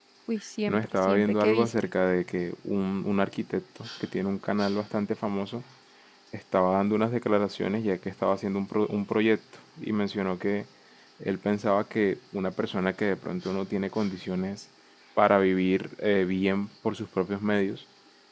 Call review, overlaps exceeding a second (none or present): present